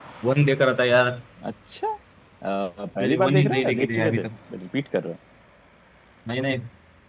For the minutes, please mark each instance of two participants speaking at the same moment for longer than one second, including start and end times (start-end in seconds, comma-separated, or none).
3.0-4.3